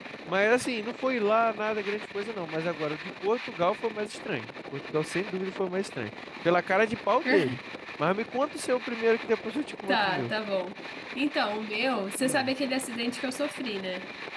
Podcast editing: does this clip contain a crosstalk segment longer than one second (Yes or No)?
No